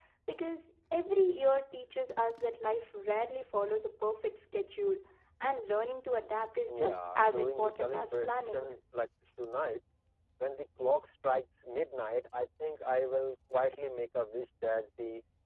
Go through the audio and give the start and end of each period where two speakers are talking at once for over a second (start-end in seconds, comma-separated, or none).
6.7-8.7